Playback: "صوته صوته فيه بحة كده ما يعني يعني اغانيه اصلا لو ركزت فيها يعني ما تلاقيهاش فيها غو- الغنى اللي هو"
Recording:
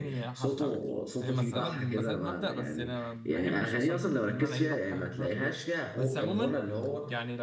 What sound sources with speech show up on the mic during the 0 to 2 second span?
both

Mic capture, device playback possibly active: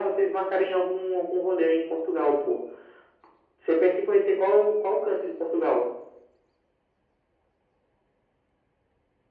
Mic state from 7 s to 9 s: neither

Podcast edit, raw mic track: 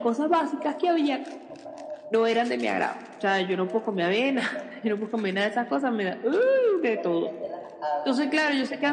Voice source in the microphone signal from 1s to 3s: both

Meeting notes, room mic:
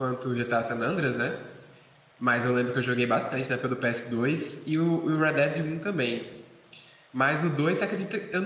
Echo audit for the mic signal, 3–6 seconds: user only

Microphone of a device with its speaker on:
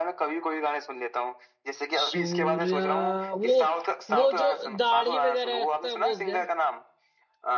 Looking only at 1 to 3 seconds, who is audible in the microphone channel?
both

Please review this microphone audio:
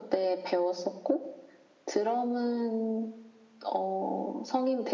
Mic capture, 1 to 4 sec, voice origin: echo only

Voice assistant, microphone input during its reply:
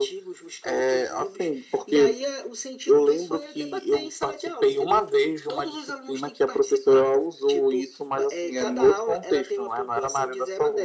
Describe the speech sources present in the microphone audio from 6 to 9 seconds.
echo only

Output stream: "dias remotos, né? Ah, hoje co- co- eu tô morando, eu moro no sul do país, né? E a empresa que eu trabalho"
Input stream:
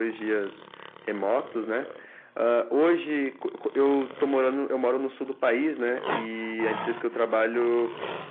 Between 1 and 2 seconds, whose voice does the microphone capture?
echo only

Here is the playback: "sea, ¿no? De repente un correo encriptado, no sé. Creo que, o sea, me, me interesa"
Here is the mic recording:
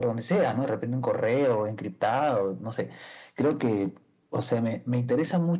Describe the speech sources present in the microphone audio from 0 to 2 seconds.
echo only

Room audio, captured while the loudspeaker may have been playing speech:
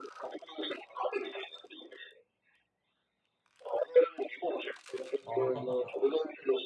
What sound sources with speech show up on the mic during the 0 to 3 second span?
echo only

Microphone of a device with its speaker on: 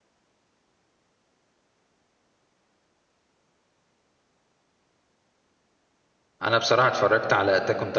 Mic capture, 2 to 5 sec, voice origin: neither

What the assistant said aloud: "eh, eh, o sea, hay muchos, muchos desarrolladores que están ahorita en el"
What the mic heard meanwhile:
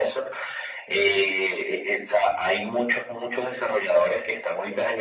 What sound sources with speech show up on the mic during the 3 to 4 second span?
echo only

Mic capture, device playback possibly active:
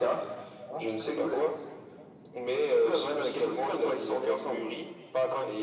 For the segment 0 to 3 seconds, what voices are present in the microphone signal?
echo only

